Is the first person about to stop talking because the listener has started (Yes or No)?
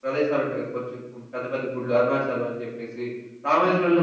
No